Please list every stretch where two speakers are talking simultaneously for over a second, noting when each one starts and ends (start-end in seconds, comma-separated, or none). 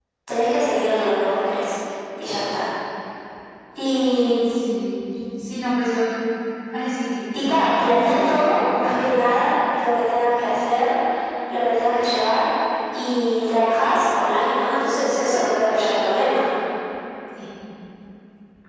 7.3-8.6